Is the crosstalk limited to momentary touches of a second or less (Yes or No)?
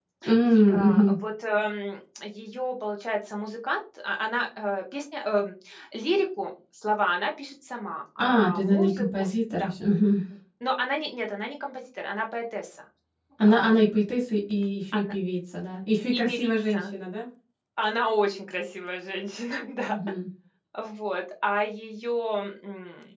No